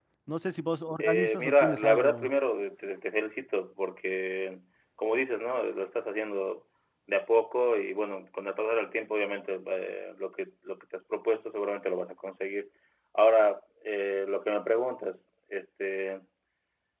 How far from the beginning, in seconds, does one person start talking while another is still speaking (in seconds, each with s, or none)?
1.0 s